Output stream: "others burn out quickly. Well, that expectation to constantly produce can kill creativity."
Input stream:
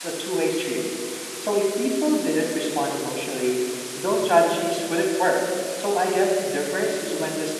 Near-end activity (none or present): present